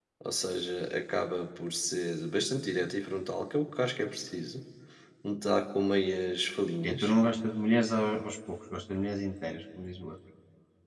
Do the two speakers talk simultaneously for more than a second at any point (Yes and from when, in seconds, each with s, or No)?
No